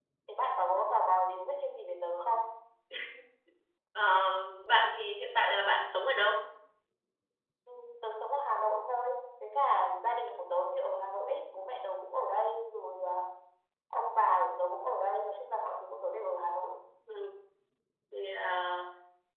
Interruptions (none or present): none